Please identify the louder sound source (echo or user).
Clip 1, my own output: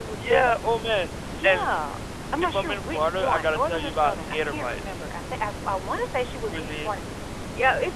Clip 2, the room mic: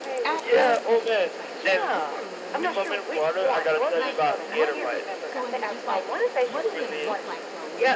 echo